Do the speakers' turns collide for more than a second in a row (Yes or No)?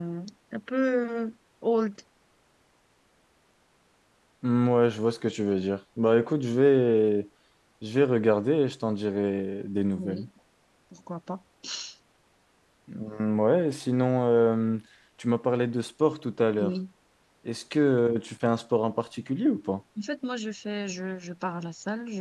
No